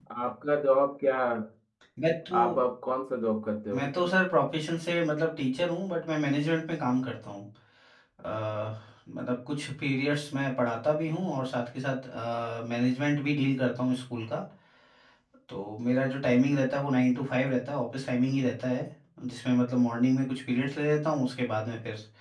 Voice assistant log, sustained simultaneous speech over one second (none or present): none